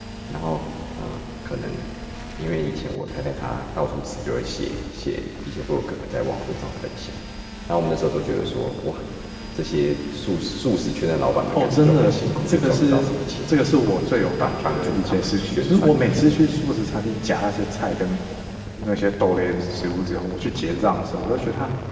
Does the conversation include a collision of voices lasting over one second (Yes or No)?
Yes